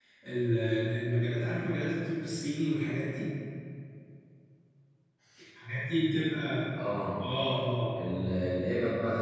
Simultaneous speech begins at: none

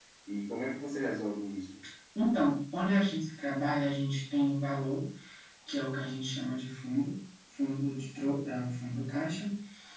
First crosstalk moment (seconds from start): none

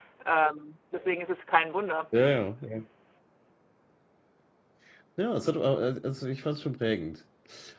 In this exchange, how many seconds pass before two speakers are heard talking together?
none

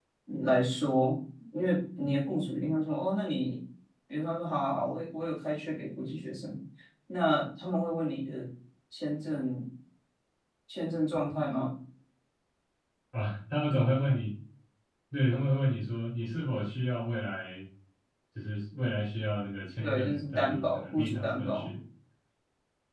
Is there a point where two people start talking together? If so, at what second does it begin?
19.8 s

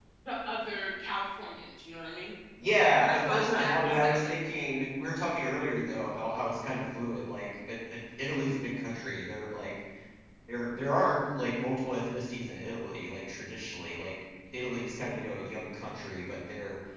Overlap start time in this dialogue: 3.0 s

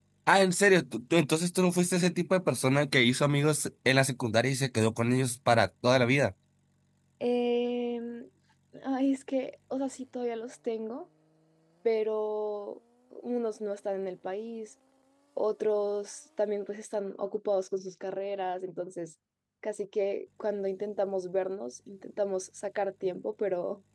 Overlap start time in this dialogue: none

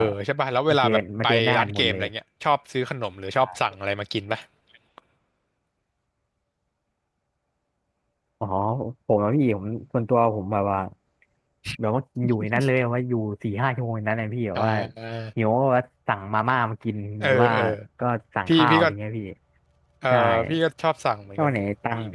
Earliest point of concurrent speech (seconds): 0.7 s

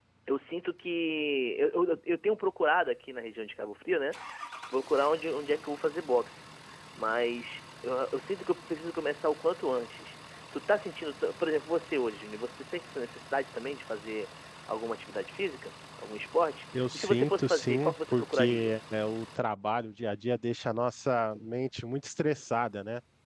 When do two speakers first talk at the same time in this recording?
16.7 s

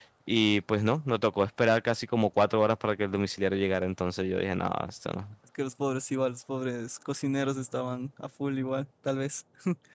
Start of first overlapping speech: none

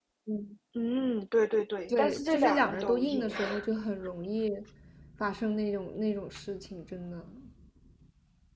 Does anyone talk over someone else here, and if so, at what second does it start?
1.9 s

